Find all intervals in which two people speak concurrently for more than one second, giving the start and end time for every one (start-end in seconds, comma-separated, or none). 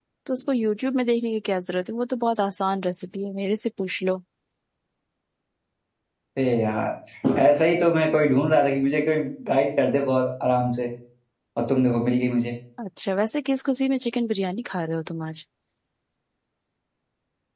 none